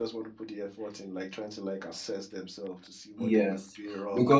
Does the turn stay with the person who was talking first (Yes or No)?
No